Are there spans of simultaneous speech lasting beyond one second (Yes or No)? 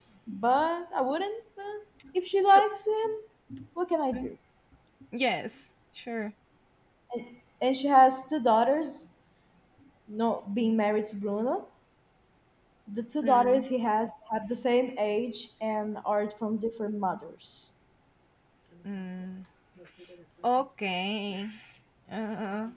No